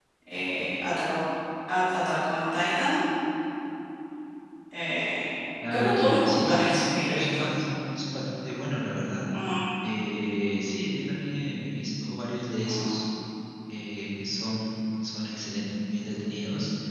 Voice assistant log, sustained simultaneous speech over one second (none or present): present